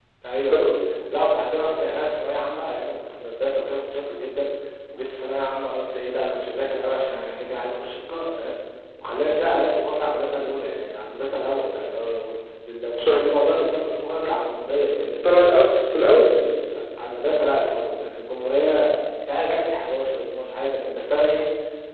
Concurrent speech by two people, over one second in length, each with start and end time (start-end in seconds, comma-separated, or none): none